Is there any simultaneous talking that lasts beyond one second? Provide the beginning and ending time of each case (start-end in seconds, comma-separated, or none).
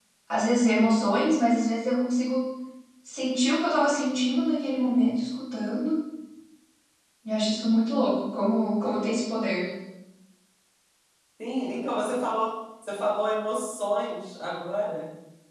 none